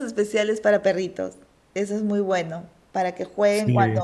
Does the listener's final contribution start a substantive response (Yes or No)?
No